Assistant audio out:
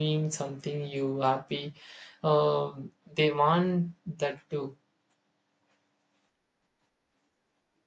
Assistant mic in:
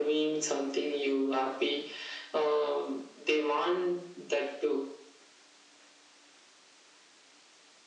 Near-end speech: none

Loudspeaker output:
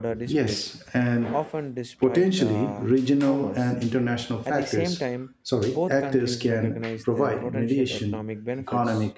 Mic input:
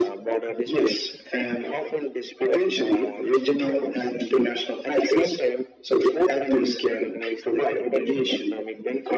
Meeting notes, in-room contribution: none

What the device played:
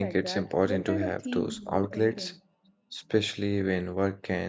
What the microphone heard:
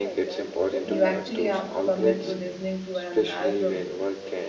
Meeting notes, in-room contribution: present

